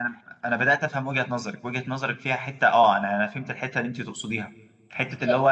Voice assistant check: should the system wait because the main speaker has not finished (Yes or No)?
Yes